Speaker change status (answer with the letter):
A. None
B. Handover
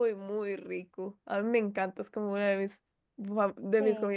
A